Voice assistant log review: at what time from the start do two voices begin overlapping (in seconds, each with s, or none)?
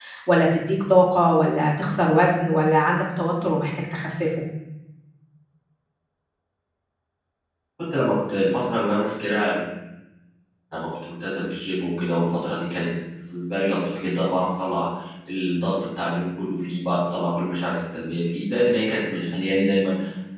none